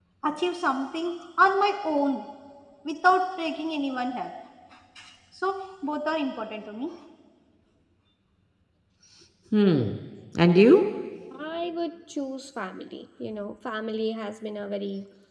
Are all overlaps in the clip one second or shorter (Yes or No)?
Yes